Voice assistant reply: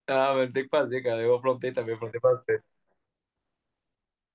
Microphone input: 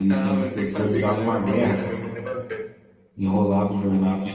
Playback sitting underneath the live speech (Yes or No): Yes